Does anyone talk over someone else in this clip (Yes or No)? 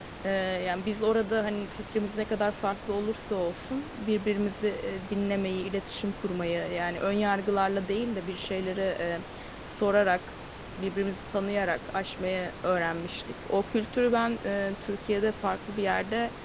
No